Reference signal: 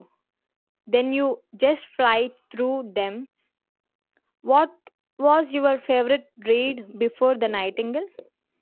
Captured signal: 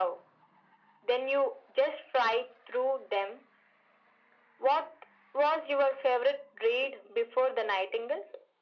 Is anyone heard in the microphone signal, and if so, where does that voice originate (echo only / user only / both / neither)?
echo only